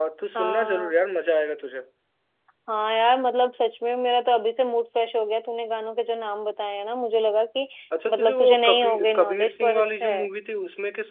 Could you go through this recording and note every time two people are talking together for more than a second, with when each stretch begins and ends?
8.1-10.3

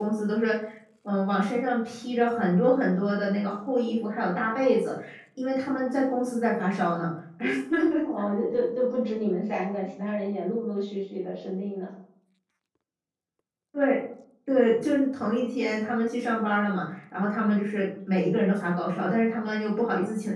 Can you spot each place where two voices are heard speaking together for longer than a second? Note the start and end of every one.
none

